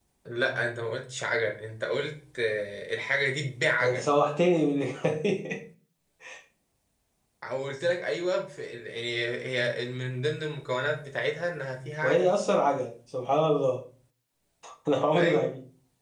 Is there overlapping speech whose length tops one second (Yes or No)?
No